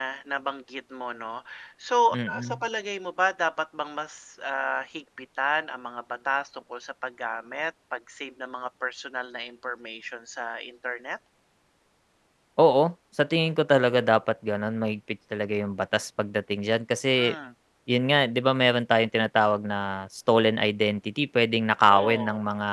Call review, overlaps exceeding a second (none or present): none